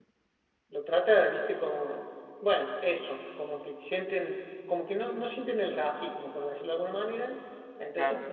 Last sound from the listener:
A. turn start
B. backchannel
B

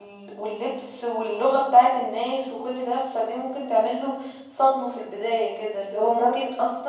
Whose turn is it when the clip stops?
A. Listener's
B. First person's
B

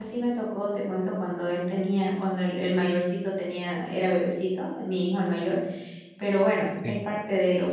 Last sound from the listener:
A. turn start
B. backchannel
B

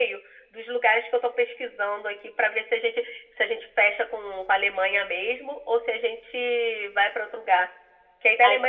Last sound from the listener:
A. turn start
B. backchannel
B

